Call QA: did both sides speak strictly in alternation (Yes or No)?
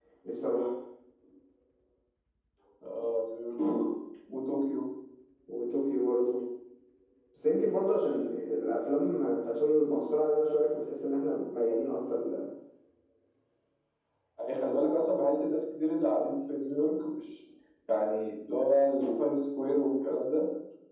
Yes